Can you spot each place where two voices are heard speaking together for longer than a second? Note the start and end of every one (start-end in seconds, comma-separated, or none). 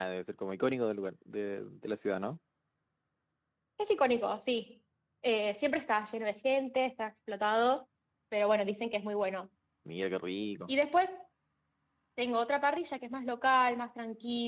none